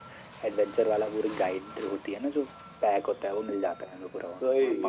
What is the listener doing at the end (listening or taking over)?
listening